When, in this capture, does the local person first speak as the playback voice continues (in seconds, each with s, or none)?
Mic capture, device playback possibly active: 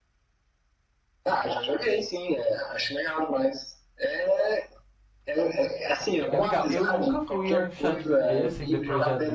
6.3 s